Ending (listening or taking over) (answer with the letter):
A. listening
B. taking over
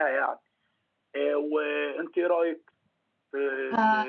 B